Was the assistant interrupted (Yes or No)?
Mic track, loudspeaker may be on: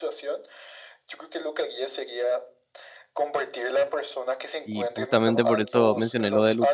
Yes